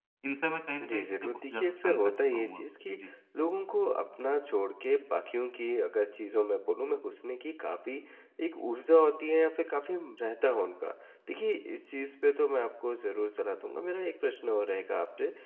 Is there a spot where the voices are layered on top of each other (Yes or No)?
Yes